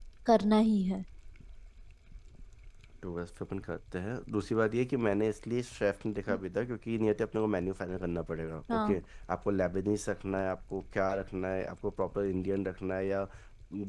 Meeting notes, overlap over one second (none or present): none